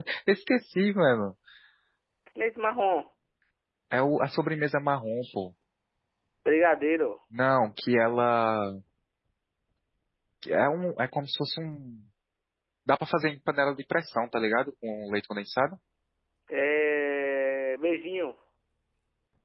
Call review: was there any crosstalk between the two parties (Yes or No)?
No